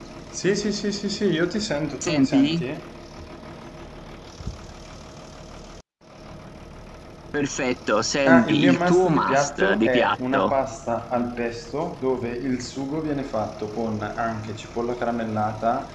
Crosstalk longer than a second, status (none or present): present